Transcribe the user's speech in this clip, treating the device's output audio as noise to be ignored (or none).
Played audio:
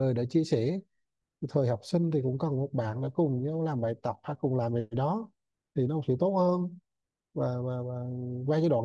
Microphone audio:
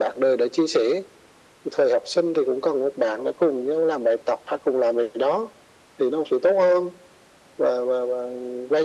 none